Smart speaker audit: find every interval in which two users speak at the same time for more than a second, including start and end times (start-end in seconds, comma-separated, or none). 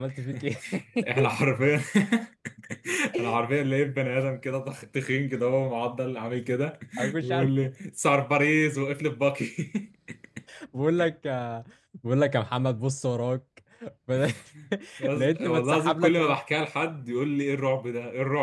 15.2-16.4